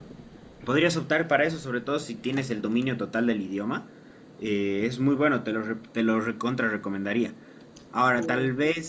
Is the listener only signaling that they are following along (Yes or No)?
Yes